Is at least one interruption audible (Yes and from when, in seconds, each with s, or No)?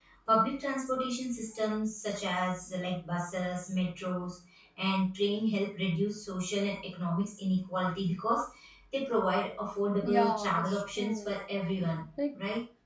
Yes, from 10.0 s